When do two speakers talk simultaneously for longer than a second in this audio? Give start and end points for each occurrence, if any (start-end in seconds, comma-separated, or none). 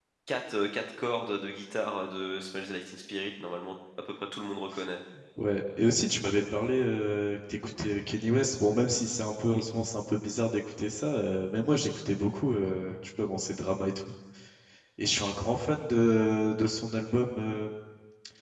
none